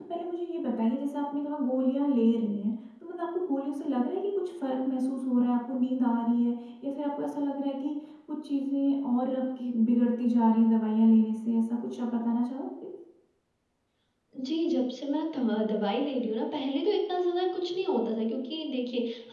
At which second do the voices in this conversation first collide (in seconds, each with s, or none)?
none